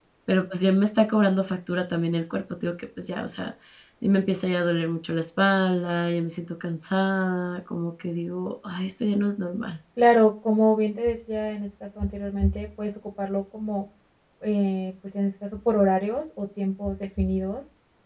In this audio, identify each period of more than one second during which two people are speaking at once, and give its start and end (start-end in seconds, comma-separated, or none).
none